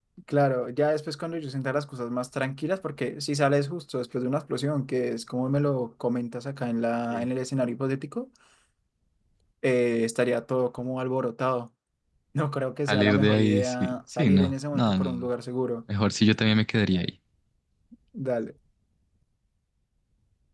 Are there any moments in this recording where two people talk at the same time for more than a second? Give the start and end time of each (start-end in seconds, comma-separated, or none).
12.9-15.3